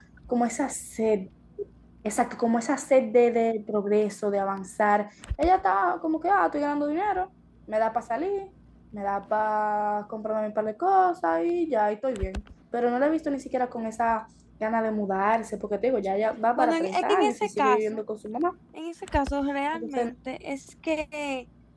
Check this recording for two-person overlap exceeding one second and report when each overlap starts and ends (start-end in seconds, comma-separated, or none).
16.6-18.0